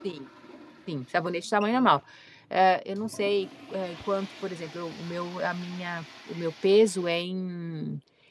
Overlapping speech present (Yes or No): No